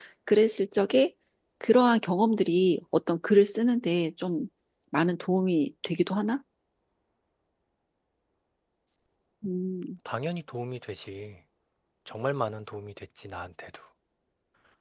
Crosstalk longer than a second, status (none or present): none